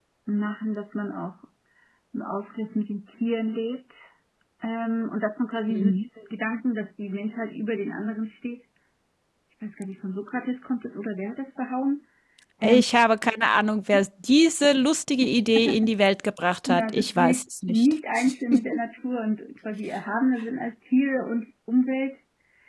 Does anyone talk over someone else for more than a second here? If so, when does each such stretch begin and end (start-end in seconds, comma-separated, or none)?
16.7-17.9